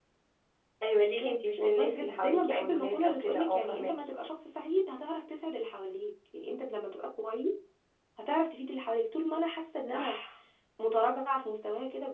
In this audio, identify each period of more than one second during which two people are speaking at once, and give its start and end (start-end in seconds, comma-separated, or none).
1.2-4.0